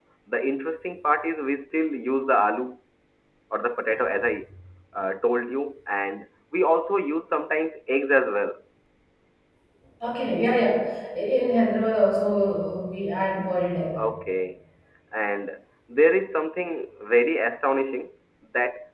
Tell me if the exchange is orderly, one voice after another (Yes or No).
Yes